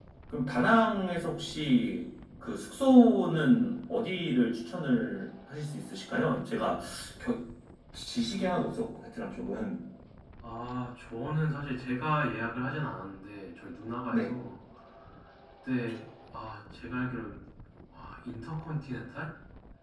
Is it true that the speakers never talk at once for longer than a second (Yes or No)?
Yes